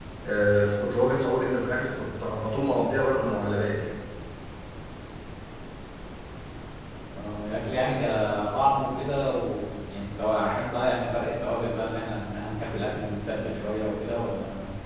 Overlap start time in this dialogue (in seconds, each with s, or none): none